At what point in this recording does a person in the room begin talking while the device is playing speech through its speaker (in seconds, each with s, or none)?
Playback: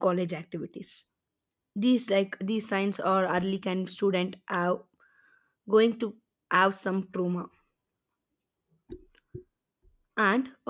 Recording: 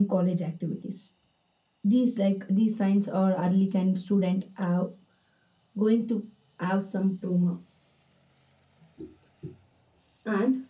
none